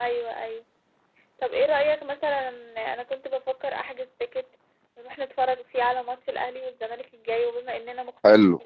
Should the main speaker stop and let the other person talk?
No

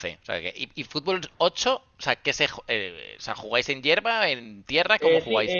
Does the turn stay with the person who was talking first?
No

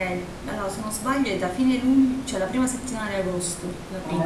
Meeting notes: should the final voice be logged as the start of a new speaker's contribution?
Yes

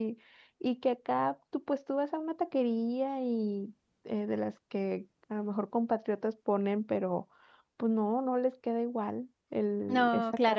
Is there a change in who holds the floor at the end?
Yes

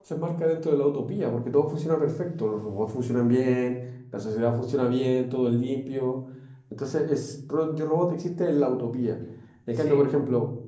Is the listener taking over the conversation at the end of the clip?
No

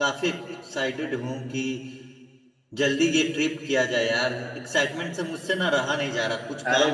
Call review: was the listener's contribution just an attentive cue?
No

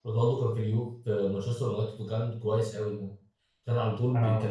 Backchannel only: Yes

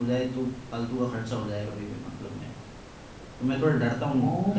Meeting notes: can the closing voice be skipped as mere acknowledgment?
No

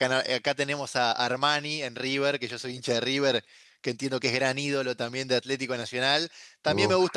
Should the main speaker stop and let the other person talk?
No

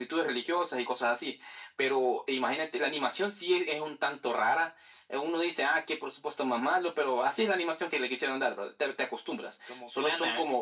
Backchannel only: Yes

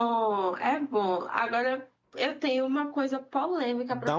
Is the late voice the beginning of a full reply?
Yes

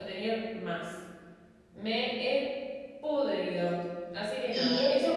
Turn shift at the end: Yes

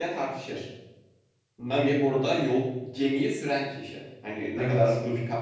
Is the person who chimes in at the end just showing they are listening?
Yes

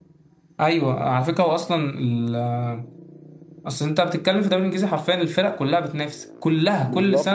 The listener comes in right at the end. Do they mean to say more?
Yes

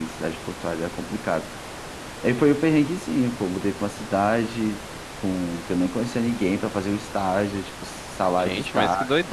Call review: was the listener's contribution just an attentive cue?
No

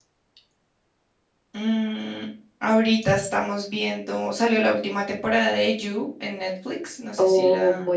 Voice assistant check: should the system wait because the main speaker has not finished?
No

